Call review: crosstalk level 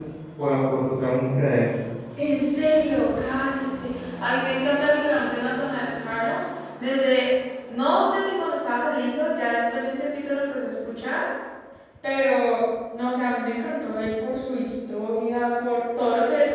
none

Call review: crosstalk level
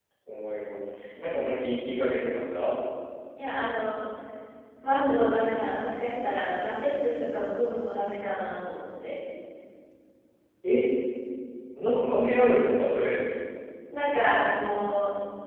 none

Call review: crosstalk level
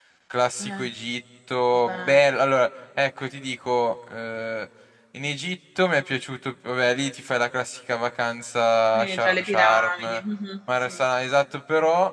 present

